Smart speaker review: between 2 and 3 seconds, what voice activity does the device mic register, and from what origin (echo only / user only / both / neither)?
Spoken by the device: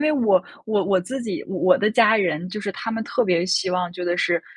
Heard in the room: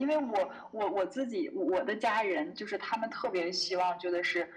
echo only